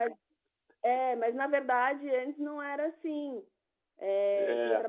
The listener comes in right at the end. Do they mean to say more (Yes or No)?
No